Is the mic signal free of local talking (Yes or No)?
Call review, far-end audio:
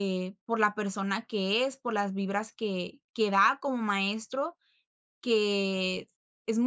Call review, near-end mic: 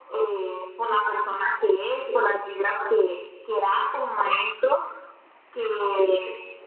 Yes